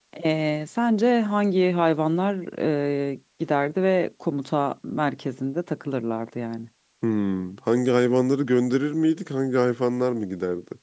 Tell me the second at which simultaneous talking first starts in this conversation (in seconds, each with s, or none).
none